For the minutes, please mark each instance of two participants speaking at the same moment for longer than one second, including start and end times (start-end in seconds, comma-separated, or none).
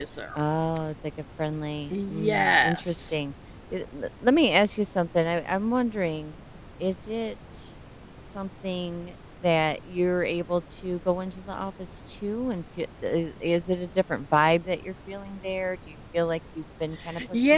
1.9-3.2